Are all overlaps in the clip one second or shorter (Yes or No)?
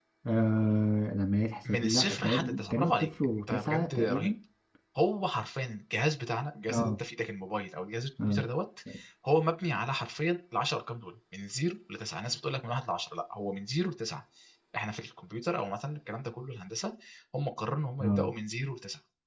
No